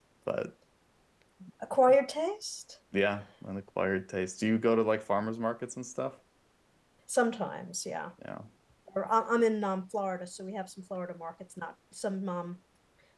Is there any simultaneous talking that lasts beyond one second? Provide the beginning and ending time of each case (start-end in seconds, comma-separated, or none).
none